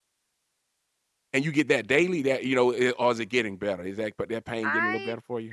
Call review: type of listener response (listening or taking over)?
taking over